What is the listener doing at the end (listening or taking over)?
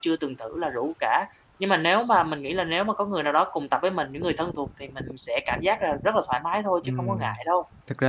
taking over